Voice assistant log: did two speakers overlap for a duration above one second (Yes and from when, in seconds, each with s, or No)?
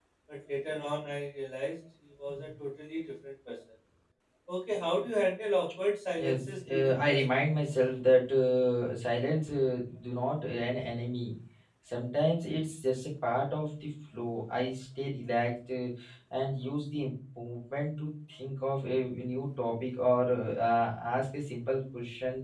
Yes, from 6.2 s